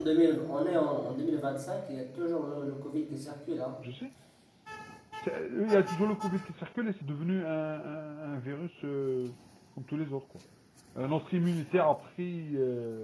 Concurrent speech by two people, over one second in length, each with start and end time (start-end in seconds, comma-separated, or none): none